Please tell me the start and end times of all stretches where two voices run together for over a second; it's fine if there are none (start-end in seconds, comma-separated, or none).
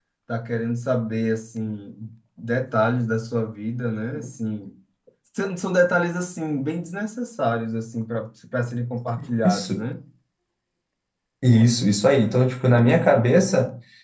none